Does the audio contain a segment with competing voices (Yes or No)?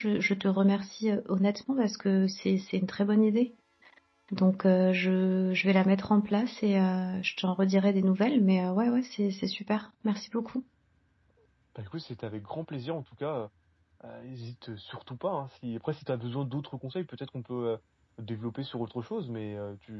No